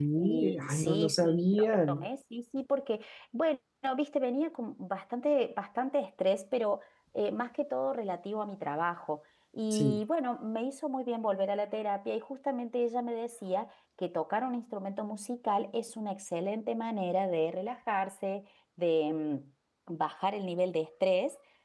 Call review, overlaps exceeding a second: present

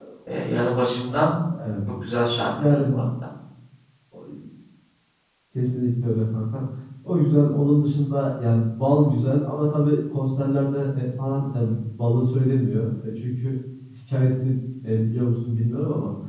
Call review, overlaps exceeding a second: none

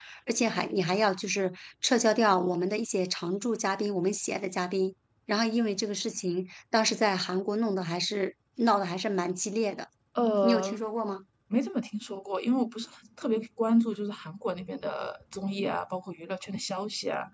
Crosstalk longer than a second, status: none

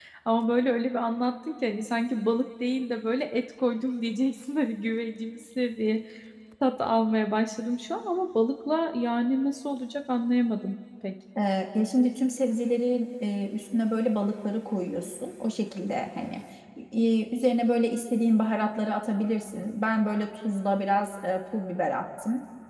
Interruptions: none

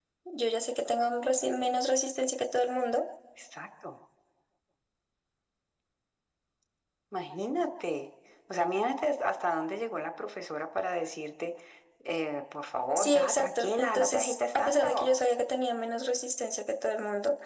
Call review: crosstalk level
present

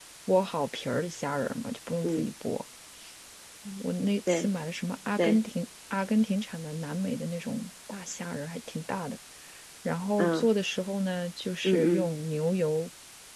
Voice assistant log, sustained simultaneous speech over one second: none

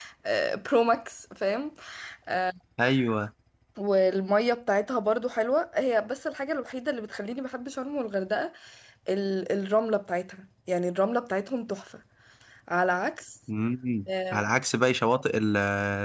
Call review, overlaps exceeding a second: none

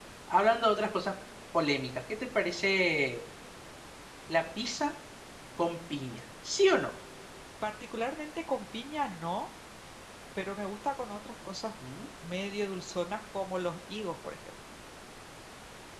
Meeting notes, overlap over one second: none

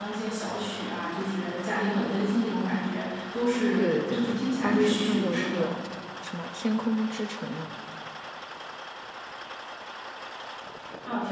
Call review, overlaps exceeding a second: present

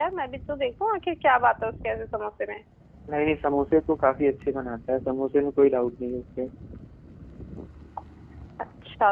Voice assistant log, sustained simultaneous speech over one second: none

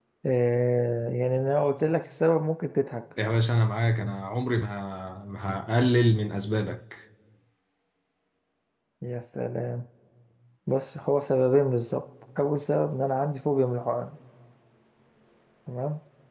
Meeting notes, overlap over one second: none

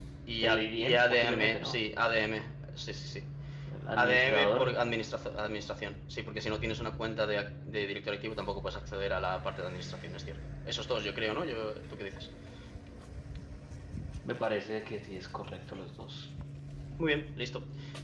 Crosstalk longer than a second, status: present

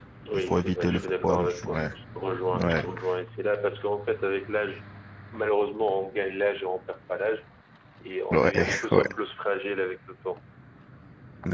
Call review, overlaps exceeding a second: present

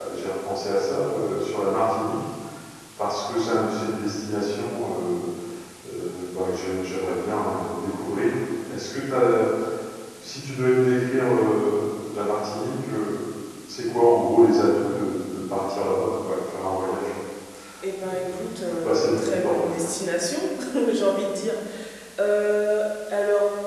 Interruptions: present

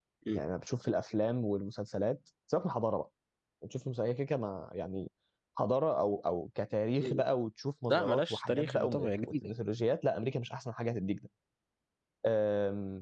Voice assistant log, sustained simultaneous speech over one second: present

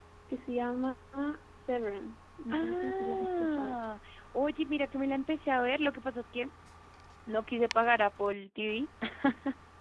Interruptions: present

